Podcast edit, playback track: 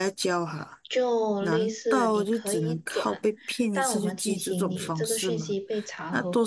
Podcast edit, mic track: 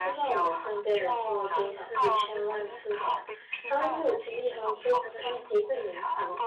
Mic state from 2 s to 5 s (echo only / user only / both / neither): both